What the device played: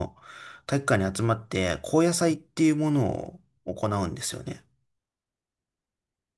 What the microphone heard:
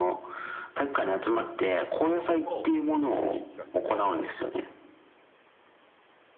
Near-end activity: present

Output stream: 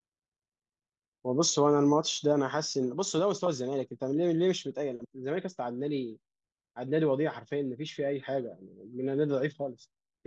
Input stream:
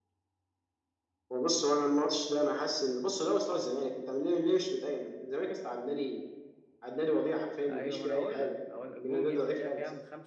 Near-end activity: present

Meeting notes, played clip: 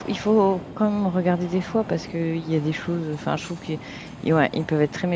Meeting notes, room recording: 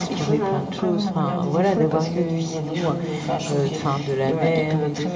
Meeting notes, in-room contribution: present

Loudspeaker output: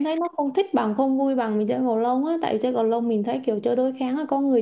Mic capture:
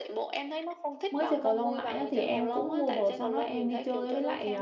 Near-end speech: present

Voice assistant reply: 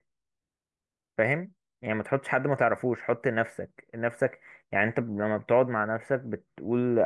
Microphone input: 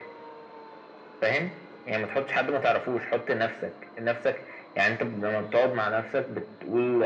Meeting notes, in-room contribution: none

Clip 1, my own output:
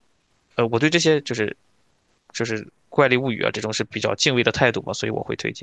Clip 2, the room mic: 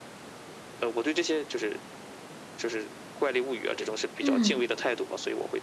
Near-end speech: present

